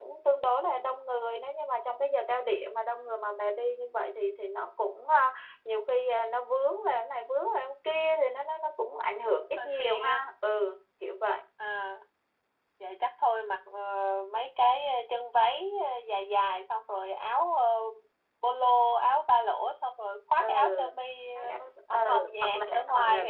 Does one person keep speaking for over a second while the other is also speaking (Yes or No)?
Yes